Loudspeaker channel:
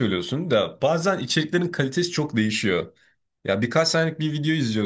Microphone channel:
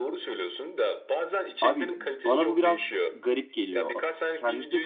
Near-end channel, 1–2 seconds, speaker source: both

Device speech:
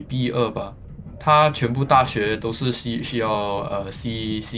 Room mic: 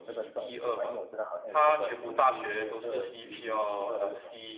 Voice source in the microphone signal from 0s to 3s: both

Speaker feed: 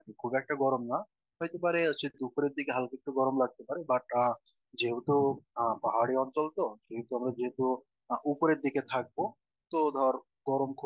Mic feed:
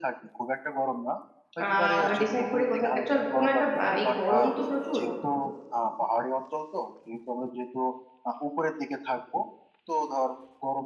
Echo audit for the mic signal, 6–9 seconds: echo only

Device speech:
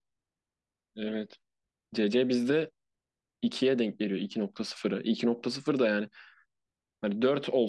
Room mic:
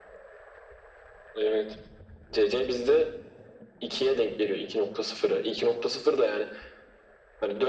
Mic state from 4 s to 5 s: echo only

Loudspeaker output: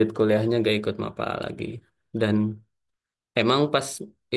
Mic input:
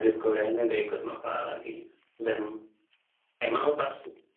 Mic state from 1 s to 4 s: echo only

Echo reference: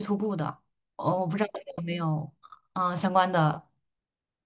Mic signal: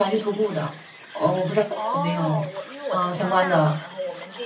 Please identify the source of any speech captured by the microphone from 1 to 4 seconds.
both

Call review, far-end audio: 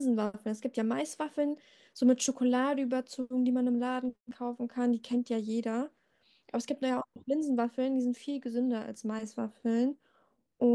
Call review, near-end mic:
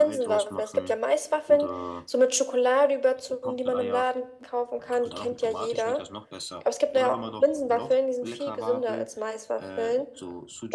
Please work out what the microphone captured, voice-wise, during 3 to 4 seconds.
both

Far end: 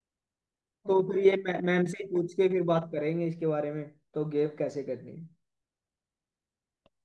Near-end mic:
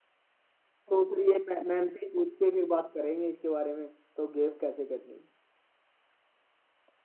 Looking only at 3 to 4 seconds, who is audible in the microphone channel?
echo only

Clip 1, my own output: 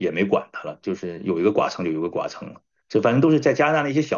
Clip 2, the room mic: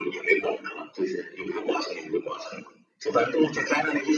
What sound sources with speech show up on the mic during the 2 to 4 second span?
echo only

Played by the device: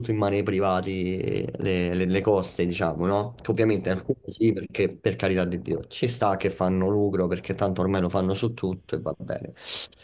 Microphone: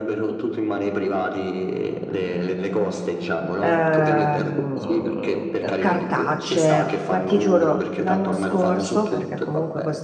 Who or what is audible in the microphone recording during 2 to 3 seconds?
echo only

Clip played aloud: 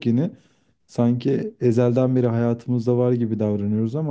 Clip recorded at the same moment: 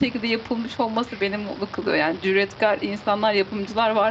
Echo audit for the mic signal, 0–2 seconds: user only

